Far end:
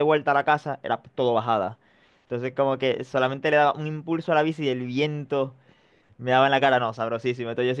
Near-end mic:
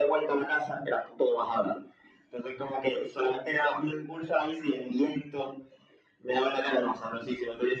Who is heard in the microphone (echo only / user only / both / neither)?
echo only